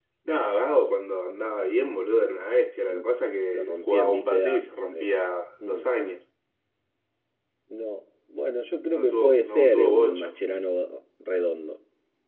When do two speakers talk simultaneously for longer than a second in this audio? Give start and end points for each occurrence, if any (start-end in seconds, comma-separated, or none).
3.5-5.1, 8.9-10.3